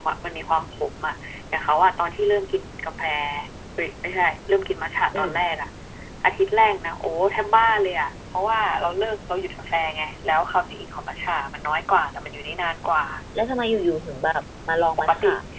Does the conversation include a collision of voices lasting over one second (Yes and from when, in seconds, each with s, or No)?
No